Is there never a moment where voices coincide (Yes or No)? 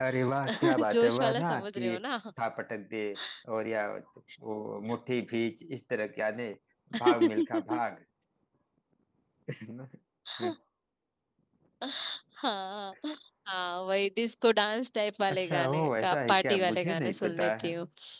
No